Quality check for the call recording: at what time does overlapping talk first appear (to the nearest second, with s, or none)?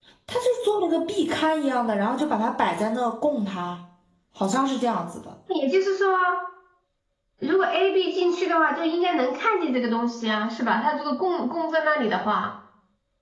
none